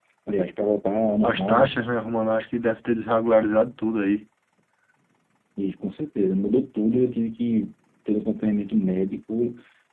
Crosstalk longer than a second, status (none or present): none